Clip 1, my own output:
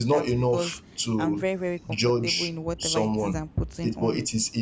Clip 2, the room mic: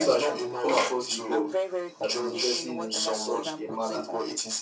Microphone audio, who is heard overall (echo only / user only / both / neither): both